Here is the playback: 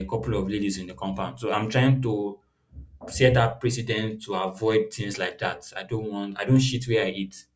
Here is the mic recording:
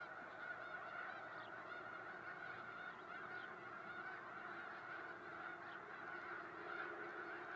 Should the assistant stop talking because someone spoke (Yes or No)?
No